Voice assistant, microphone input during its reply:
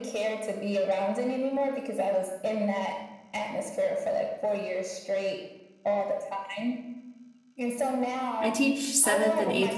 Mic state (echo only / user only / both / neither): both